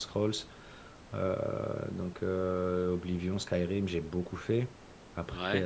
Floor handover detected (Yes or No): No